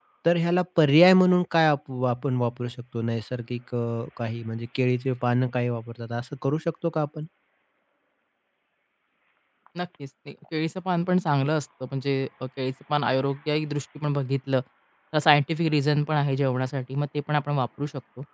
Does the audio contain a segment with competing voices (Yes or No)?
No